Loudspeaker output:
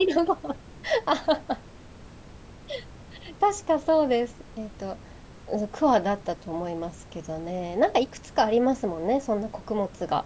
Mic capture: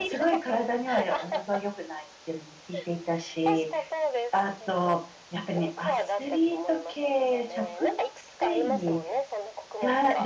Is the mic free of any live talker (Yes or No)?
No